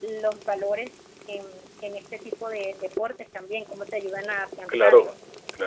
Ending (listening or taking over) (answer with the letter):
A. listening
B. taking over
B